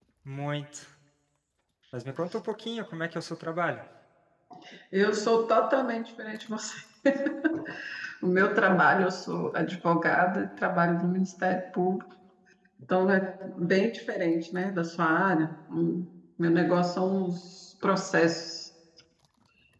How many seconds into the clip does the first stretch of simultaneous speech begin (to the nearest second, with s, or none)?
none